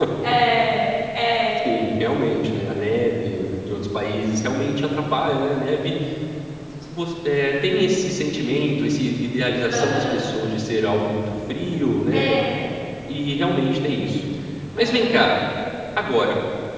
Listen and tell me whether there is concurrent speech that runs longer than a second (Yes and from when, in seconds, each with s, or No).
No